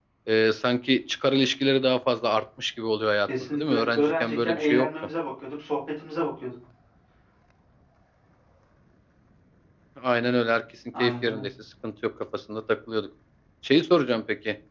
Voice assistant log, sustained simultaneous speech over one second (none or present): present